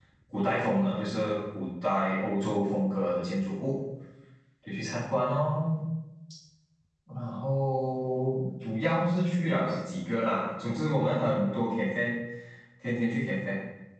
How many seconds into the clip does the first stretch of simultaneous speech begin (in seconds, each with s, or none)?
none